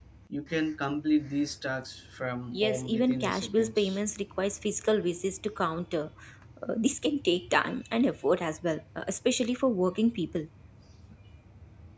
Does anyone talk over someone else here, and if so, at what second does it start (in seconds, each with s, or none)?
2.5 s